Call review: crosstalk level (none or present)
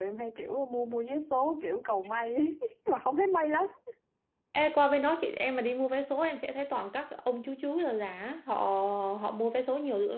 none